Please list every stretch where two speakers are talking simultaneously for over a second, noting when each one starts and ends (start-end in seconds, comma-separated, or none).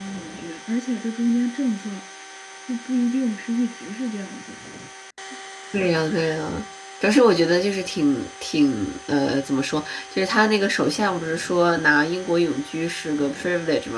none